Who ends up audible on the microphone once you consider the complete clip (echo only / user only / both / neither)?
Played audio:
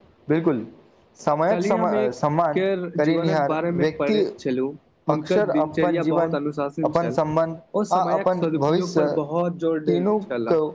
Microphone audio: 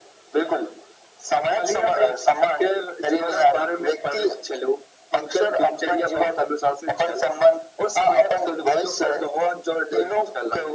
echo only